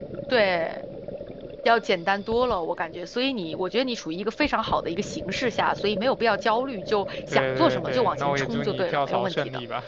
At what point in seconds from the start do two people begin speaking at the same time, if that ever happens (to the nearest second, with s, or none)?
7 s